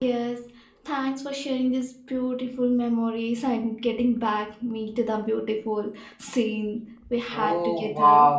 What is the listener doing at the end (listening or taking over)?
taking over